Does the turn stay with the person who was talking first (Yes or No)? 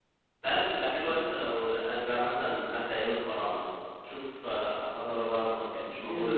No